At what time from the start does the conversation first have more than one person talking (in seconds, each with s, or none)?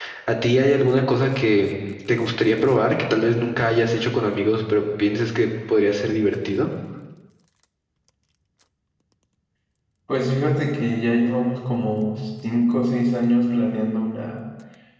none